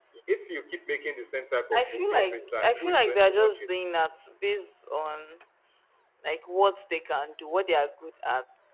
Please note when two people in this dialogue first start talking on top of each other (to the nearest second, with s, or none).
2 s